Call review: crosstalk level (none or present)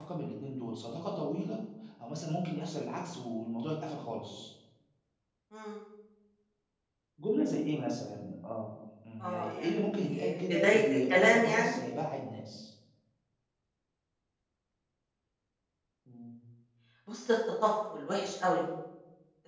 present